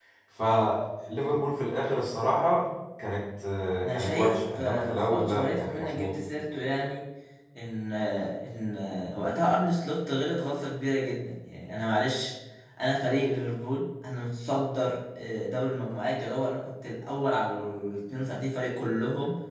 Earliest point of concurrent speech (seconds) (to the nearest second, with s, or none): 4 s